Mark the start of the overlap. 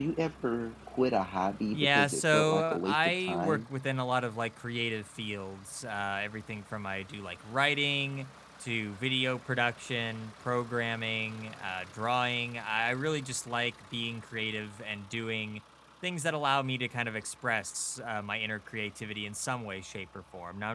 1.7 s

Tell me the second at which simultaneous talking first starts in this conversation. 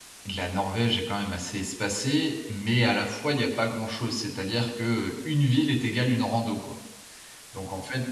none

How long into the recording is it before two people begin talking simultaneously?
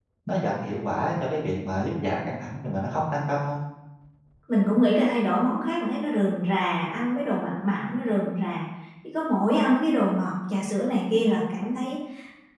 none

